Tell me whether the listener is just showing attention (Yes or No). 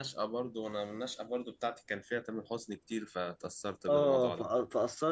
No